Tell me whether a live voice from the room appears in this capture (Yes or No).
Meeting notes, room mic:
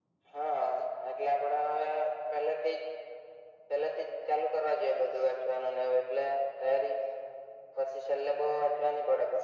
No